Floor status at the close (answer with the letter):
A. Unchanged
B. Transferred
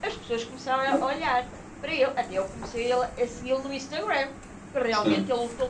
A